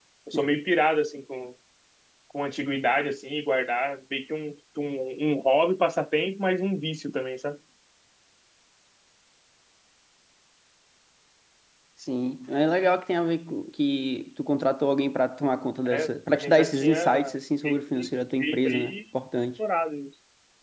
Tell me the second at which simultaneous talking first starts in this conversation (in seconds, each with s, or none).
15.8 s